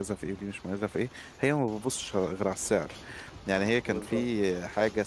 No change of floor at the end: Yes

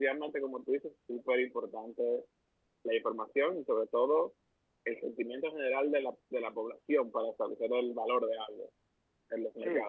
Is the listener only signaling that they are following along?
No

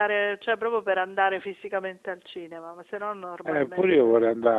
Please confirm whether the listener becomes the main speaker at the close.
Yes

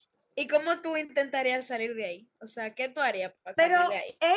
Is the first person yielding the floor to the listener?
Yes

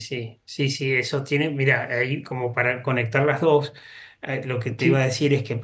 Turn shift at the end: No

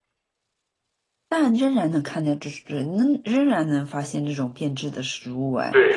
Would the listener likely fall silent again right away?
No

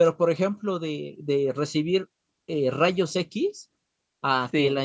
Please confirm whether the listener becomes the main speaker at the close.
No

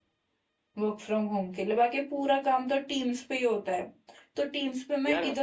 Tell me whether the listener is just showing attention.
Yes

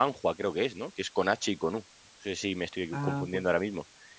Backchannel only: Yes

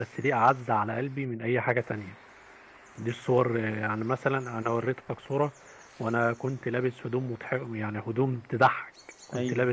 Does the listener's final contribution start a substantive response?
No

